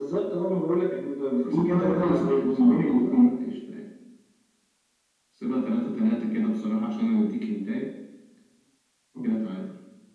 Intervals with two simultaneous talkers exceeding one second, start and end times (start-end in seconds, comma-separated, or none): 1.5-3.3